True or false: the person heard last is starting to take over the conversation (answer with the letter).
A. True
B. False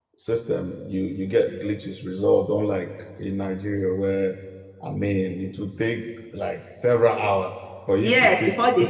A